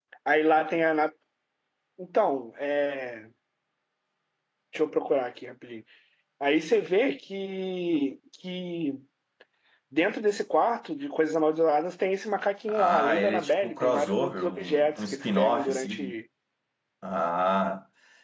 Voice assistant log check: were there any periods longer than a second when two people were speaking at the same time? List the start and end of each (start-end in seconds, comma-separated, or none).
12.7-16.1